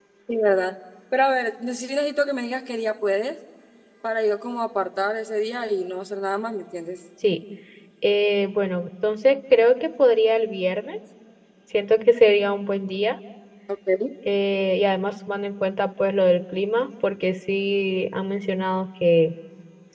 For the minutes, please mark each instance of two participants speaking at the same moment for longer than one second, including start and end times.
none

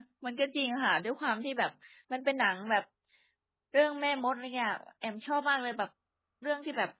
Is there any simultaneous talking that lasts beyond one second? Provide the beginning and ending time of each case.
none

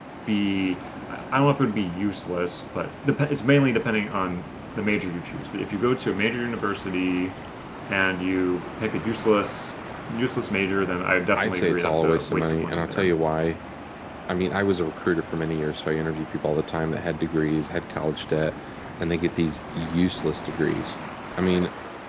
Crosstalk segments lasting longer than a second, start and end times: 11.4-13.1

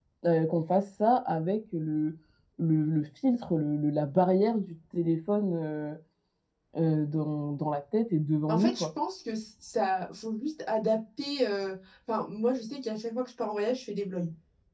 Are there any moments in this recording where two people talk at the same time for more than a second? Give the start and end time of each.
none

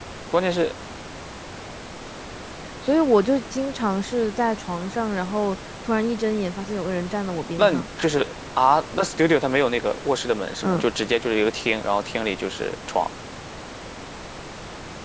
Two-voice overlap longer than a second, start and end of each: none

